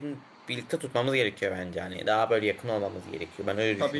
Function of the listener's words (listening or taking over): taking over